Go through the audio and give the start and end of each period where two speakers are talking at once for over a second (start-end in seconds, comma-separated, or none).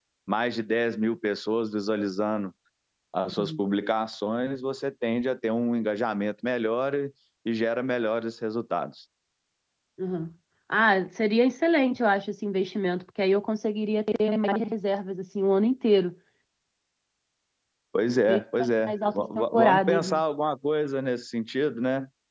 18.3-20.2